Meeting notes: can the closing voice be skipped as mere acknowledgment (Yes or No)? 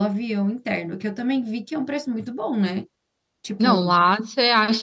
No